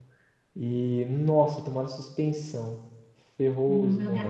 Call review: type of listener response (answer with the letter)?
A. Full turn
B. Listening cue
A